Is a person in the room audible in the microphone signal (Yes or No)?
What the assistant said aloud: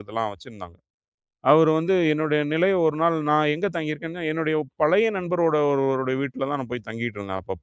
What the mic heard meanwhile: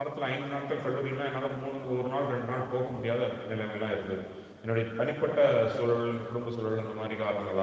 Yes